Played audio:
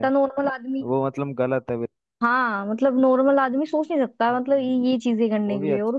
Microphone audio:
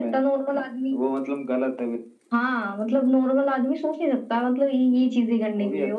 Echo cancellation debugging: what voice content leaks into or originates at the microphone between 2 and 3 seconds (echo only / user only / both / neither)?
echo only